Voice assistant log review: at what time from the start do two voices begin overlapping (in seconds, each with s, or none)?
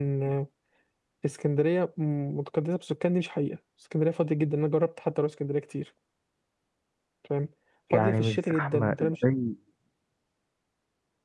7.9 s